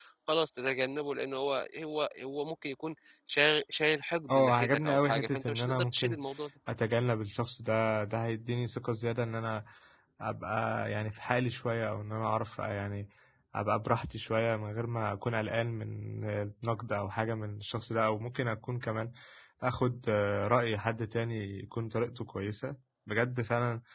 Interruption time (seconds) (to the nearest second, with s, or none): 4 s